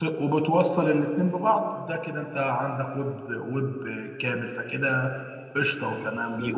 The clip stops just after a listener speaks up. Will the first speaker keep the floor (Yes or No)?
No